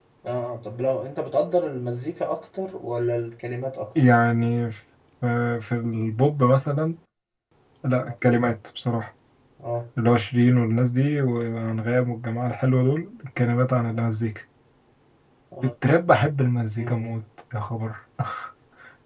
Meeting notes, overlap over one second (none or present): none